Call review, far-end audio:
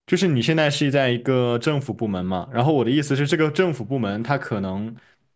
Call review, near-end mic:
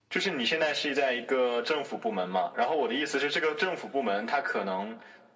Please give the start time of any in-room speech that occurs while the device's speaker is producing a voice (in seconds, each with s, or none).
none